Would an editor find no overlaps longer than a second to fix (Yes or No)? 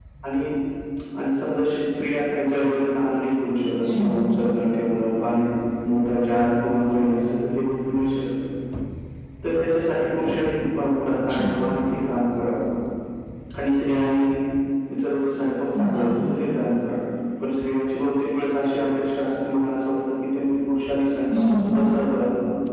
Yes